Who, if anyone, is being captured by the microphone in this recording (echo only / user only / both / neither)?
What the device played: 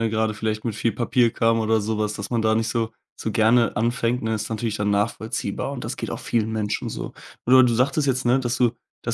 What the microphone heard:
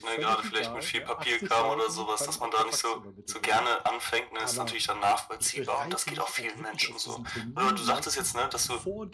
both